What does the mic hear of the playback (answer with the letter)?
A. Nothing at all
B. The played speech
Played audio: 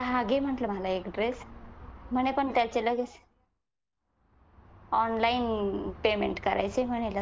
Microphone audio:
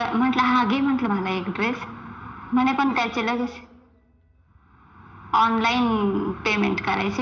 B